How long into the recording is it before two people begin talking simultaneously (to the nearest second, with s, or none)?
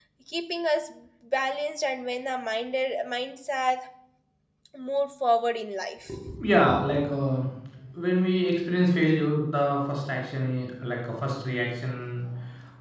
none